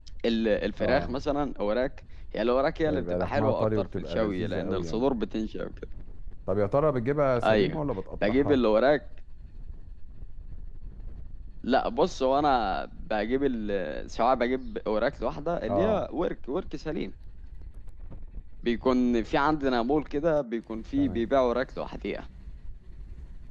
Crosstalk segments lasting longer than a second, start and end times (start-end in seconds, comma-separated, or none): 2.9-5.1